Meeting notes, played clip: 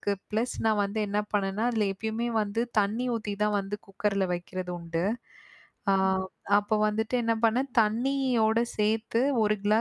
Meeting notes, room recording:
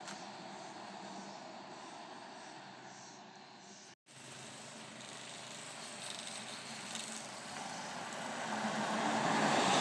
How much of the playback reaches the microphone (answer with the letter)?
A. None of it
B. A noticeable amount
A